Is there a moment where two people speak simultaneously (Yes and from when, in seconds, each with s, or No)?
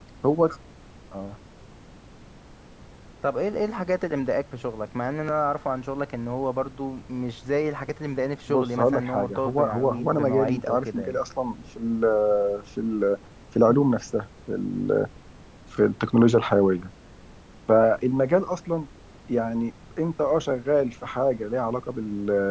Yes, from 8.5 s